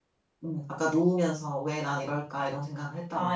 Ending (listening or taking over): taking over